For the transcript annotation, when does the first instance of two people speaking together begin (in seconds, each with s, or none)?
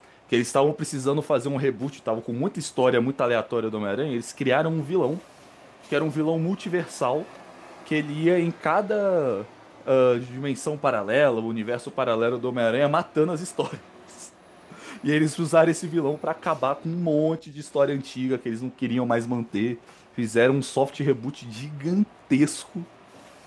none